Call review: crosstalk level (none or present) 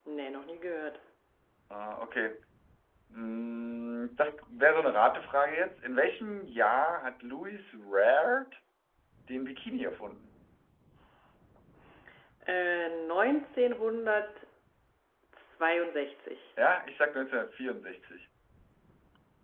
none